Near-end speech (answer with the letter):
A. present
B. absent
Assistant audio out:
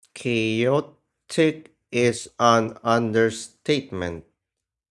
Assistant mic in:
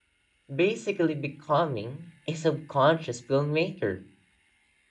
A